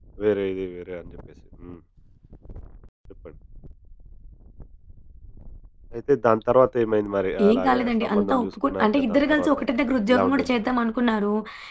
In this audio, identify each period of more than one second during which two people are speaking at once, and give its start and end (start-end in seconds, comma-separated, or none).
7.5-9.5